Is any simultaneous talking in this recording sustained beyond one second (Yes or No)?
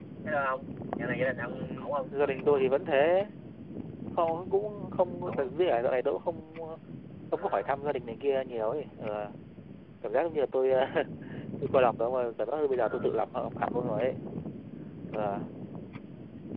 Yes